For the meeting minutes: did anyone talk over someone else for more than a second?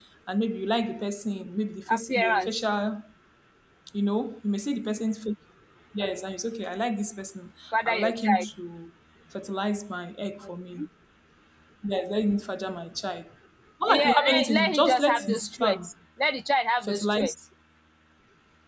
Yes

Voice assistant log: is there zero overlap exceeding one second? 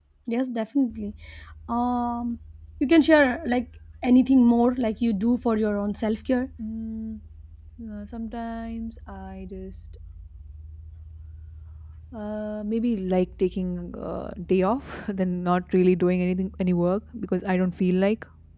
Yes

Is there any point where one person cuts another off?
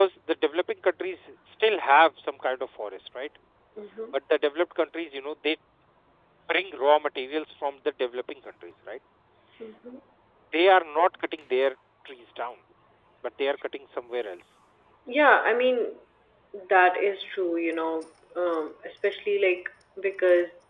No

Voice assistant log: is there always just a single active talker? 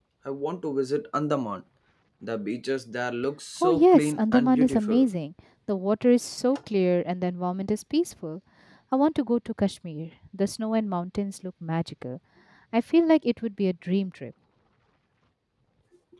No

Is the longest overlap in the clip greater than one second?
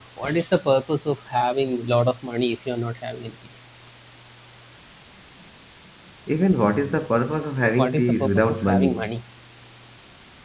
Yes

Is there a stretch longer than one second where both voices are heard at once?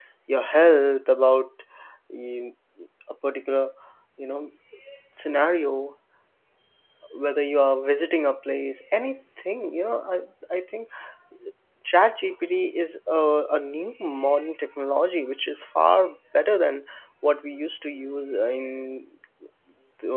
No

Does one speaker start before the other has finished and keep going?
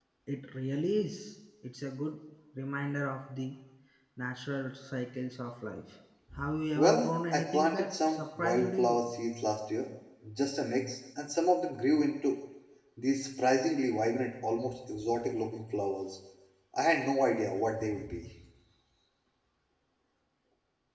Yes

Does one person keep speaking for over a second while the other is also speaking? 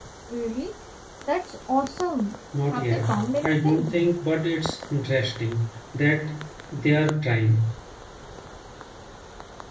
Yes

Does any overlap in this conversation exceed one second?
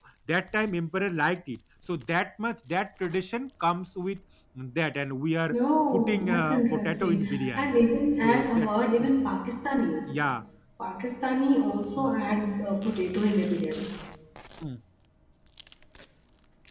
Yes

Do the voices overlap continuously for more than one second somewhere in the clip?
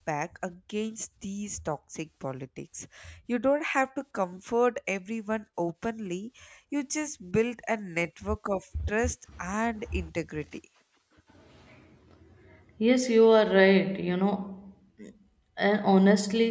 No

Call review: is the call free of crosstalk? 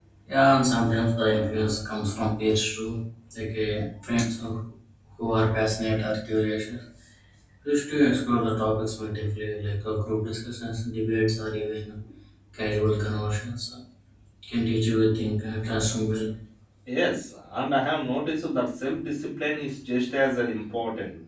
Yes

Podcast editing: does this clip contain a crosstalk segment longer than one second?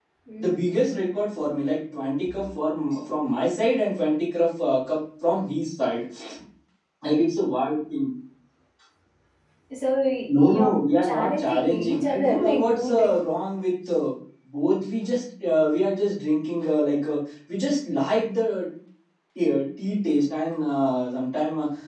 Yes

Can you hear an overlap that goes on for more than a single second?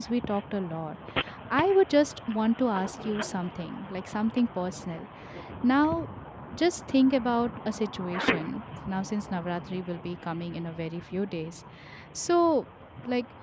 No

